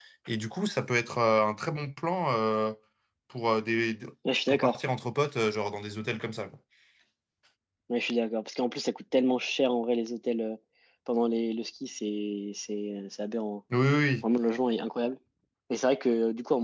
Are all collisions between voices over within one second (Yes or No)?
Yes